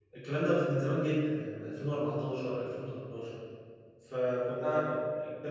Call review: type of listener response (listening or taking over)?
listening